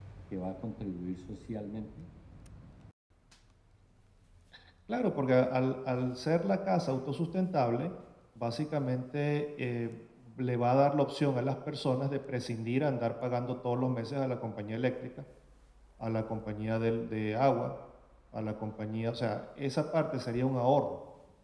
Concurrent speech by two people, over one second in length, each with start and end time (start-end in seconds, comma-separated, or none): none